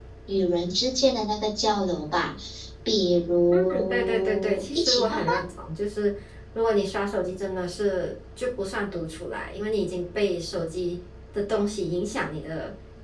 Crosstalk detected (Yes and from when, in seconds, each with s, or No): Yes, from 3.5 s